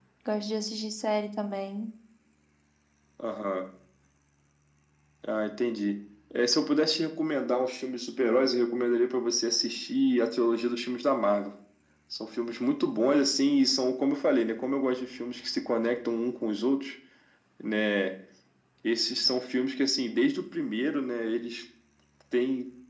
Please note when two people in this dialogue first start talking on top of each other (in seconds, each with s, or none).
none